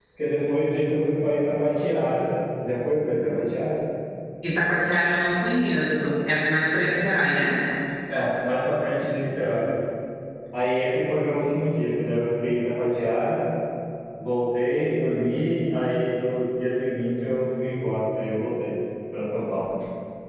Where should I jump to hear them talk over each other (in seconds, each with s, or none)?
none